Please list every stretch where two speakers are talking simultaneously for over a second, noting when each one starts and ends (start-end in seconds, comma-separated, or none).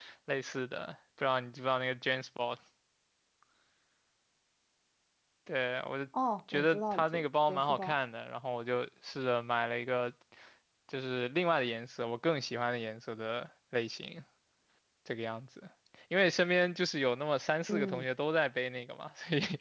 6.5-7.9